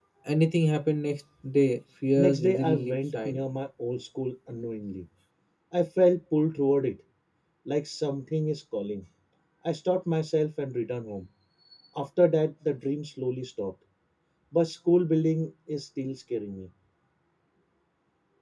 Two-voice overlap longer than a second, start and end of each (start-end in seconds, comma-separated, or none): 2.2-3.4